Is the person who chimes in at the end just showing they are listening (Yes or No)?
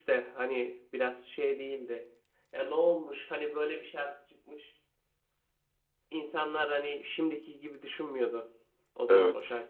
Yes